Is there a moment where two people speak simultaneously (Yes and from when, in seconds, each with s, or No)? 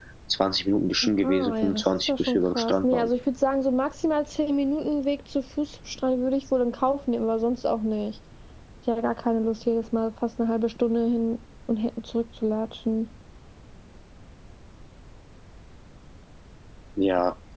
Yes, from 1.0 s